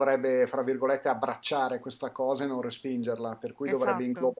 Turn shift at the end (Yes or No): No